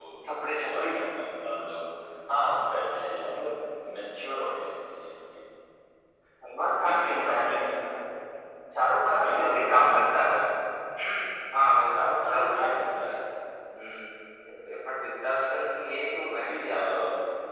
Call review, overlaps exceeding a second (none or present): present